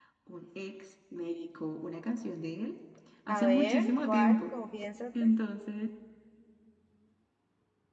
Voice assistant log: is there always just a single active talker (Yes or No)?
No